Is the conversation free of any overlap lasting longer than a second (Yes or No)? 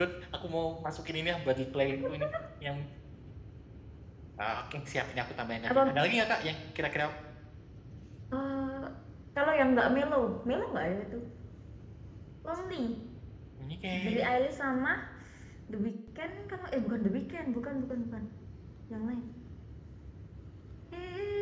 Yes